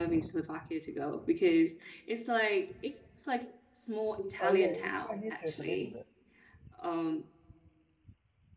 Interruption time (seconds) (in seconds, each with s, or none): 4.4 s